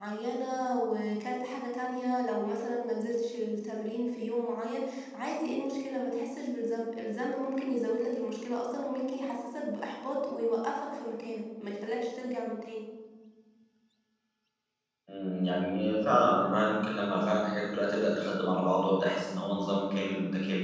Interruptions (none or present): none